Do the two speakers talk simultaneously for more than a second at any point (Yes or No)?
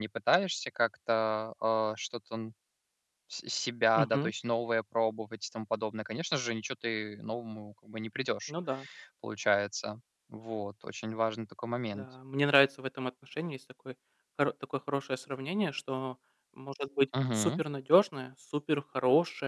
No